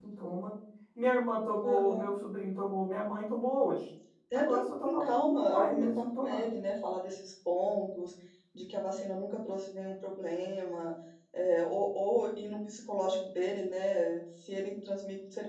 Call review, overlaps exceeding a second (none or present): present